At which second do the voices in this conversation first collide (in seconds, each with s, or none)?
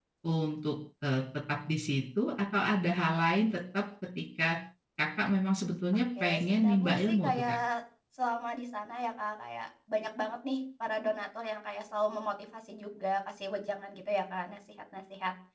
6.2 s